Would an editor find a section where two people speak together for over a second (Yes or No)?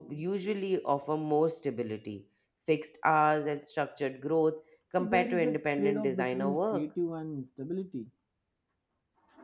Yes